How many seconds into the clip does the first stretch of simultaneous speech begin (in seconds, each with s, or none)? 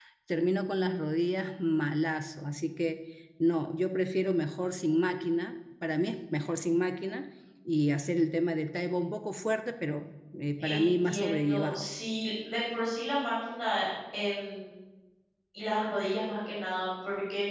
10.6 s